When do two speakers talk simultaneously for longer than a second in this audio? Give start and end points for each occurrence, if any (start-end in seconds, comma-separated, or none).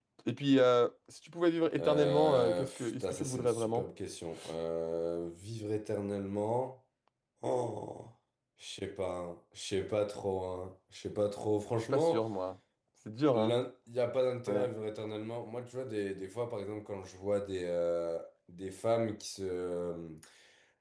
1.8-3.8